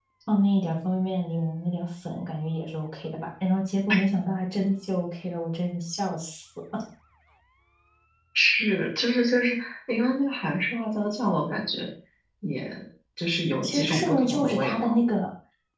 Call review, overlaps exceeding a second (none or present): present